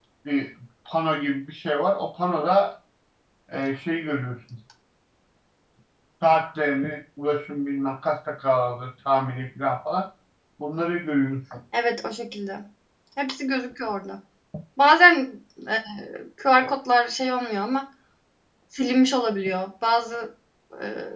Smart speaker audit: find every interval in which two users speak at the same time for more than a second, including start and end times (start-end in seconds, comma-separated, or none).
none